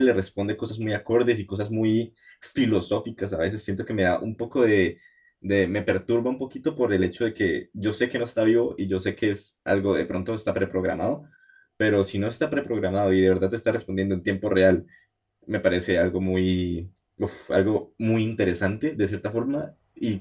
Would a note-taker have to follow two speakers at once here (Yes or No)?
No